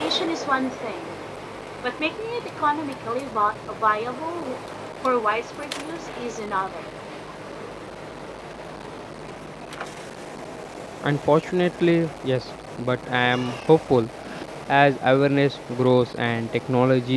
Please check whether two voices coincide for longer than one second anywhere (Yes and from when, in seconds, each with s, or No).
No